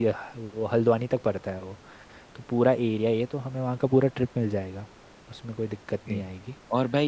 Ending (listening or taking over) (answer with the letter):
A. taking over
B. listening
A